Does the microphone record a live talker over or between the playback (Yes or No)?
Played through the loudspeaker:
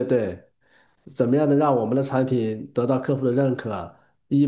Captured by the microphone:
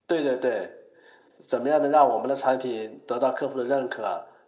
No